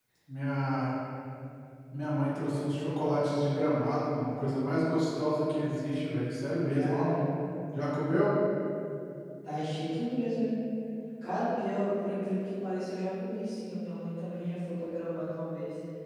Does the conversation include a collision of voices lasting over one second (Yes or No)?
No